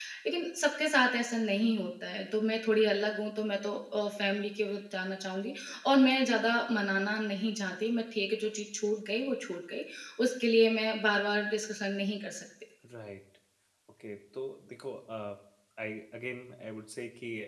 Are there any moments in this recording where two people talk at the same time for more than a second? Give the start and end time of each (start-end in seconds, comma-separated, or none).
none